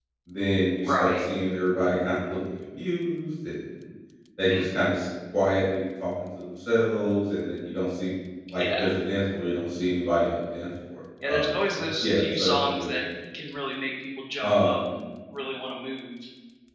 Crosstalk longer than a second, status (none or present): present